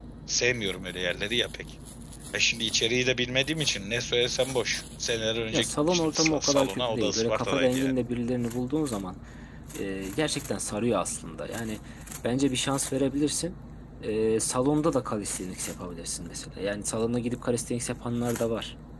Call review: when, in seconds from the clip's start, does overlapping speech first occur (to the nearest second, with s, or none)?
6 s